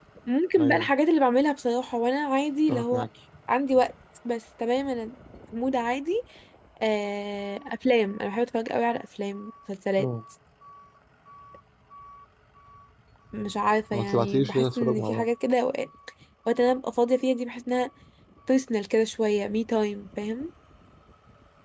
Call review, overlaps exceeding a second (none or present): present